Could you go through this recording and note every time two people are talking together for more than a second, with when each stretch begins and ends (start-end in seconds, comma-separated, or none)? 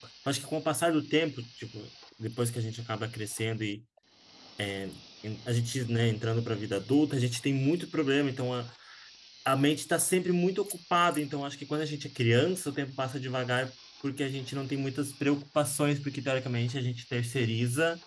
none